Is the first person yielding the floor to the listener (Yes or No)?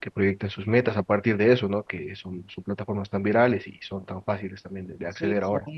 Yes